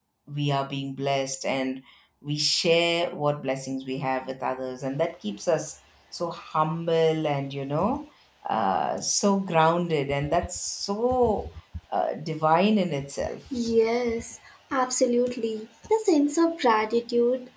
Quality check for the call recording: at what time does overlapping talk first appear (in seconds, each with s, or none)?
none